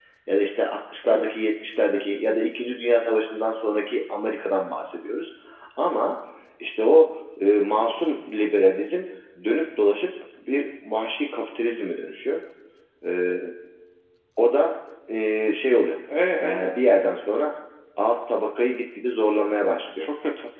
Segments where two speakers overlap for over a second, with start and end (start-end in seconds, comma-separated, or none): none